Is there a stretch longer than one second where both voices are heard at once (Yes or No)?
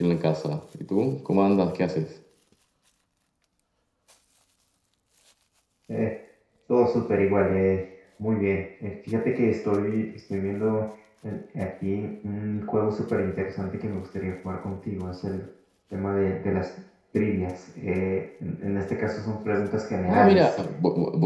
No